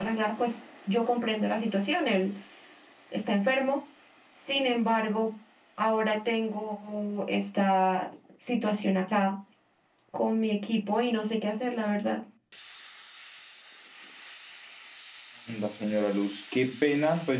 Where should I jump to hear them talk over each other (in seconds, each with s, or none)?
none